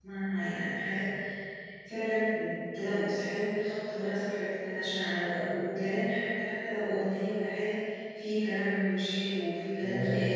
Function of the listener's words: taking over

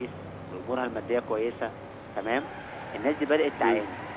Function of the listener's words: listening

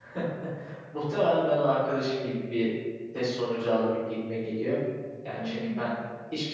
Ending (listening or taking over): listening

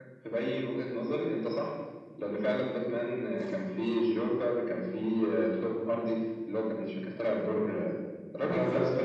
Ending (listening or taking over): taking over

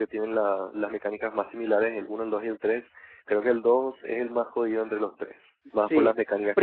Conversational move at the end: taking over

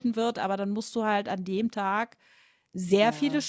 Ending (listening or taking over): listening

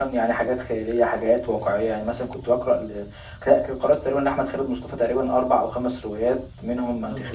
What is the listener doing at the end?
listening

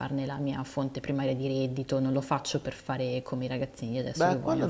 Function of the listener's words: taking over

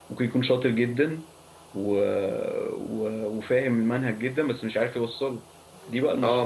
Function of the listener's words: taking over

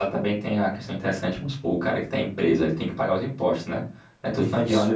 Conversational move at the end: listening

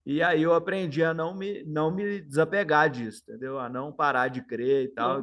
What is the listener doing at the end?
listening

